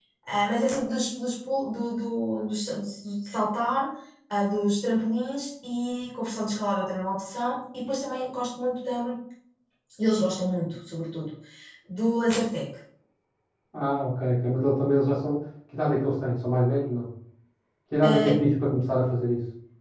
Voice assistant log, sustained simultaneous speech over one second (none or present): none